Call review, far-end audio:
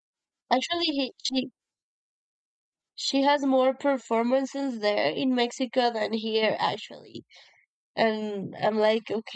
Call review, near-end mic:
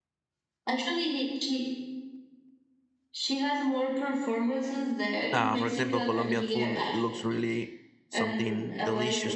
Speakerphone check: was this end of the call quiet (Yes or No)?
No